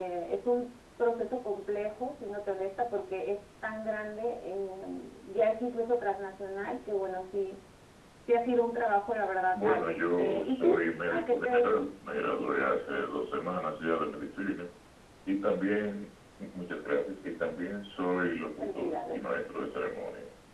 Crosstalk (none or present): present